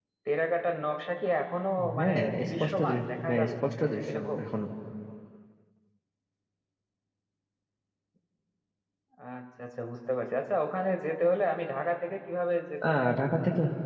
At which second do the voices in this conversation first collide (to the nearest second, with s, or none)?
2 s